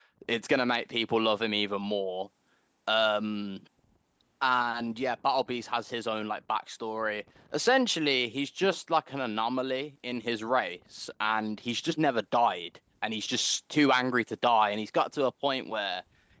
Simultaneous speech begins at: none

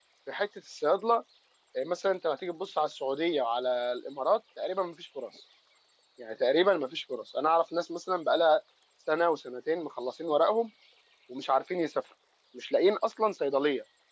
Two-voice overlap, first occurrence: none

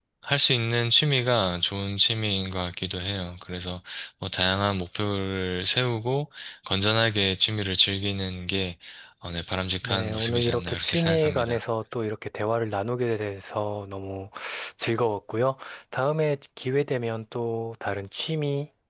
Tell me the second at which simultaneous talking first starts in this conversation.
9.8 s

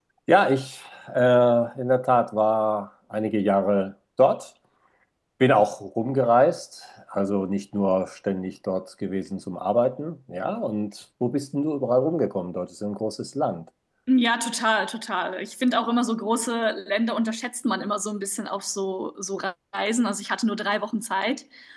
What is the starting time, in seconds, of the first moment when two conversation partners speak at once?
none

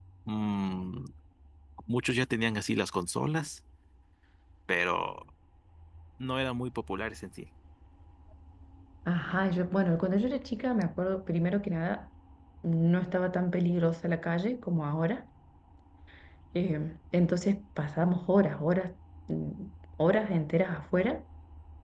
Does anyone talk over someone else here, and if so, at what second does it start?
none

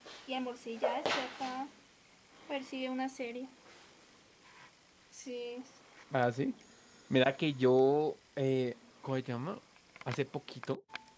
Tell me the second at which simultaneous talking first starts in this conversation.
none

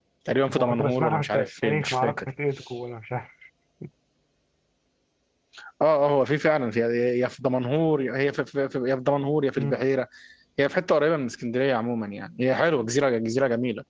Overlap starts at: 0.5 s

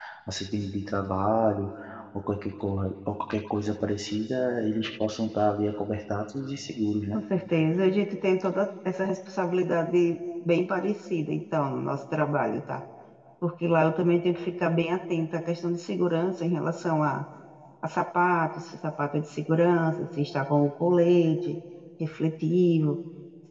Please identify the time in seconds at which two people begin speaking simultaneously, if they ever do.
none

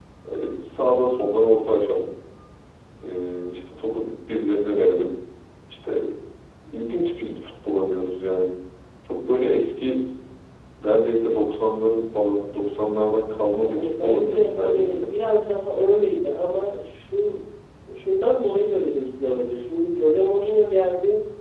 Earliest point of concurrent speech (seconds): 13.6 s

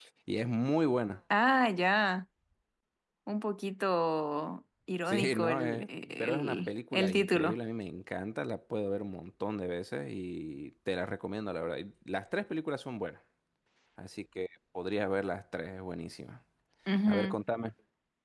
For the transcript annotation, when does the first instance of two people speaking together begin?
5.1 s

